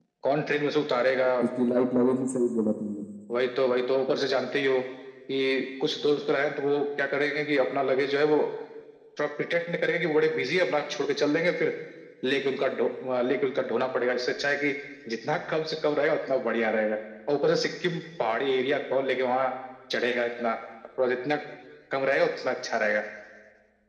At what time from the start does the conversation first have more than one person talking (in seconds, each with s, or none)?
none